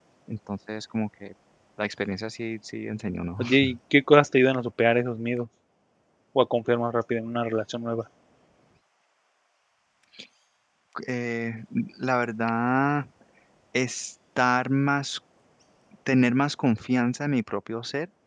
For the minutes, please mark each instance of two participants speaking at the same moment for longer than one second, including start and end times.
none

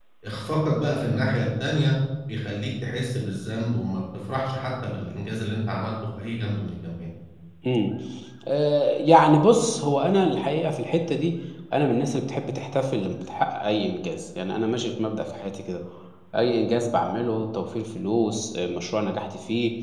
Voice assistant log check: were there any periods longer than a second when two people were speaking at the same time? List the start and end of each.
none

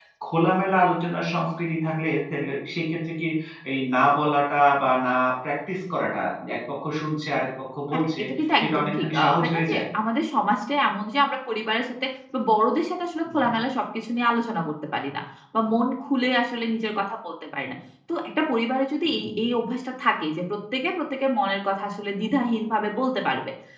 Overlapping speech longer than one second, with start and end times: 8.6-9.8

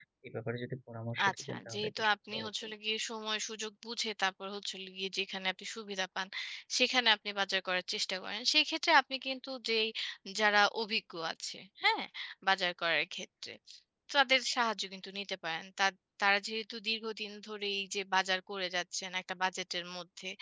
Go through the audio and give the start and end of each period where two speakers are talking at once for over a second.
1.3-2.6

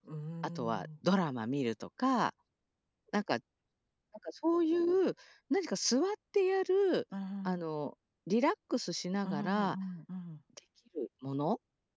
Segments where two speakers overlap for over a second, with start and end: none

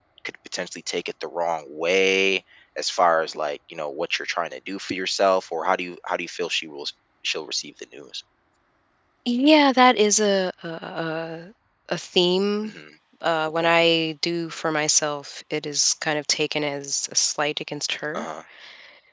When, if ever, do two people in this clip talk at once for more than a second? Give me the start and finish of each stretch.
none

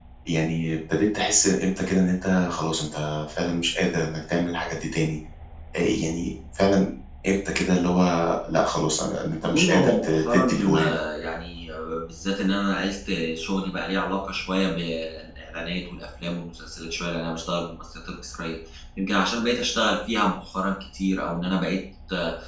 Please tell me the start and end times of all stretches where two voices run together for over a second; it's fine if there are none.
9.4-11.0

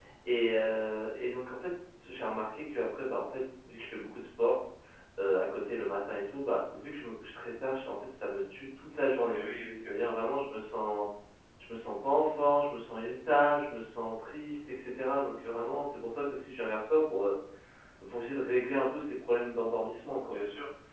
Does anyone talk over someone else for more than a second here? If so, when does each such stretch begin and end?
none

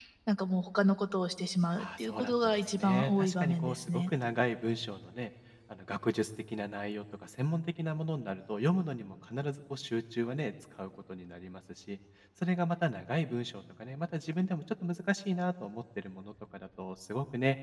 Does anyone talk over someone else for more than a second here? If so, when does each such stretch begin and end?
1.8-4.1

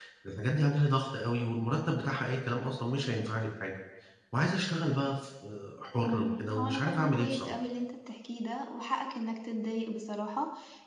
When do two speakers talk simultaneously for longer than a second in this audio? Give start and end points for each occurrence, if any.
6.1-7.5

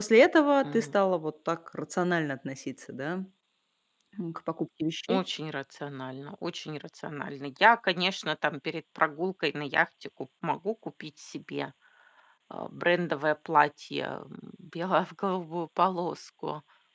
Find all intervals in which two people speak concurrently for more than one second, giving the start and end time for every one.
none

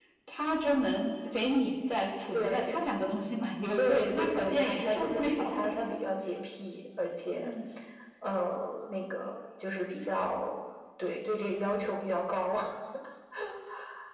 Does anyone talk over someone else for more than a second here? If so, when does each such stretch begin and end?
3.8-5.8

